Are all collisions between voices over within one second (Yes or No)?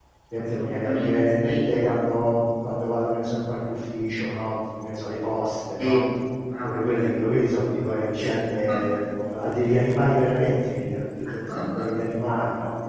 No